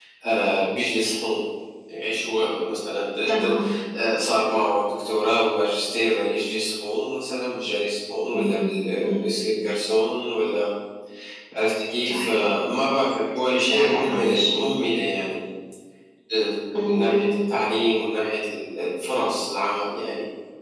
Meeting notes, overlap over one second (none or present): present